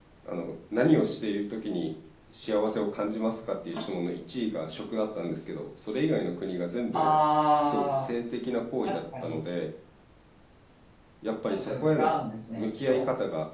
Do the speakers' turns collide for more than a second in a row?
No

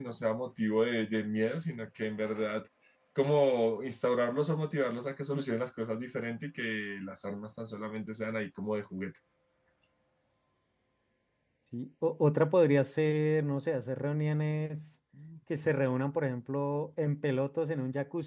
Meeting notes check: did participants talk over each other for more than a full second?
No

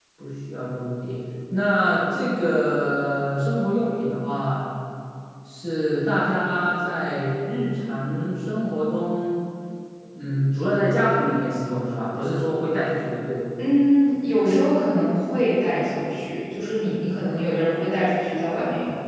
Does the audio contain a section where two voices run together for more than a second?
No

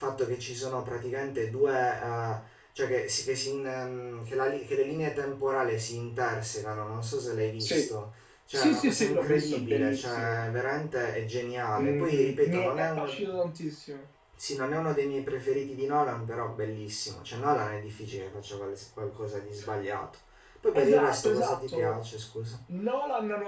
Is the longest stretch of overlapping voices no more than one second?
No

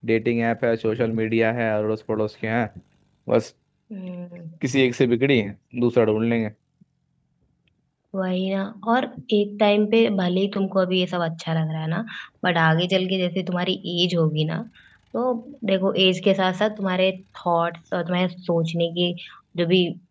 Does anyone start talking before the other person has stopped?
No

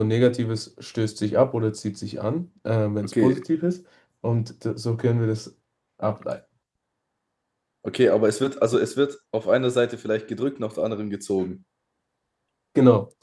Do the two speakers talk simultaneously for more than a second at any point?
No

